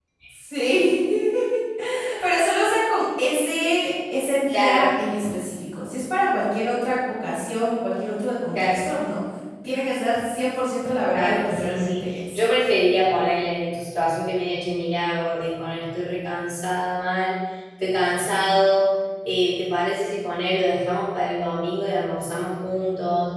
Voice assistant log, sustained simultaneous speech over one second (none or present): present